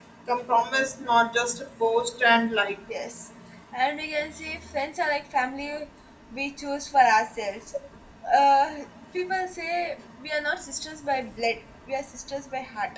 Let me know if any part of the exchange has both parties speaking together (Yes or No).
No